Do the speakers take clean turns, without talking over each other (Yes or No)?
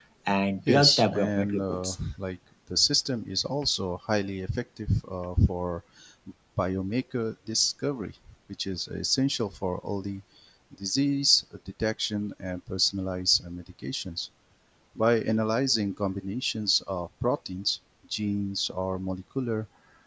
No